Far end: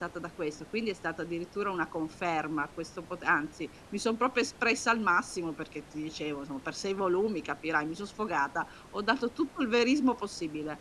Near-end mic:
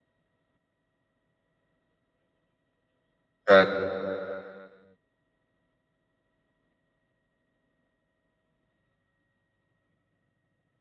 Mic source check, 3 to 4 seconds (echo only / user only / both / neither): user only